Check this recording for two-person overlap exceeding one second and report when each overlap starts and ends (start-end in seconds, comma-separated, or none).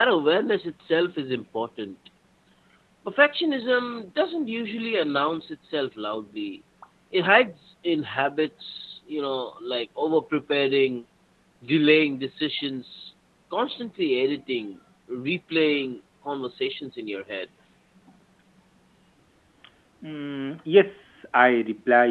none